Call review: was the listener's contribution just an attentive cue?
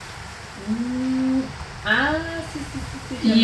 No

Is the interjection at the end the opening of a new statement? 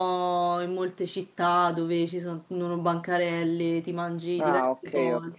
Yes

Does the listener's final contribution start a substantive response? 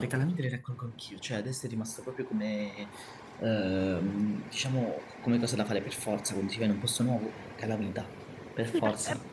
Yes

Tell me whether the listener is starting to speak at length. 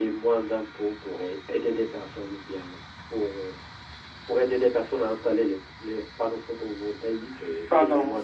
Yes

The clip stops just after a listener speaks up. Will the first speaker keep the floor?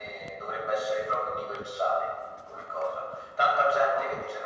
Yes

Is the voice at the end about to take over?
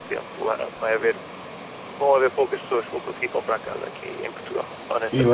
Yes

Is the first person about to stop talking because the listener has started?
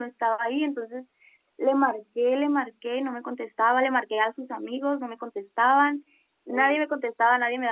No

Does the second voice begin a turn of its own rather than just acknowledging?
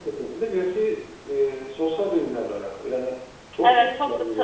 Yes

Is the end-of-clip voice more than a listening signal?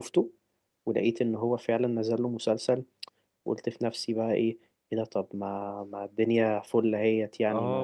Yes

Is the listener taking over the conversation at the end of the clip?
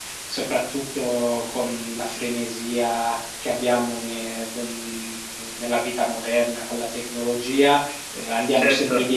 No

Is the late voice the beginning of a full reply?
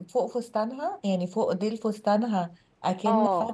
No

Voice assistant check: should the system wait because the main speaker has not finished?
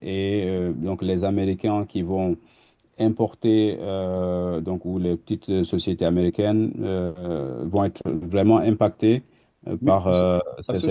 No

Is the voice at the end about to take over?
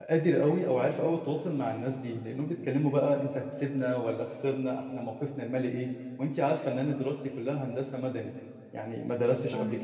No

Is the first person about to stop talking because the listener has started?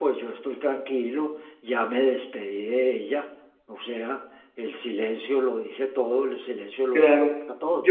Yes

